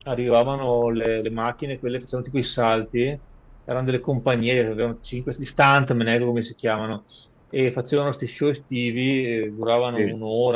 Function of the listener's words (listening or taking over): listening